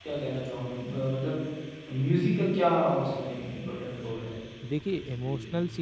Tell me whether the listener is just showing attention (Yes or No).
No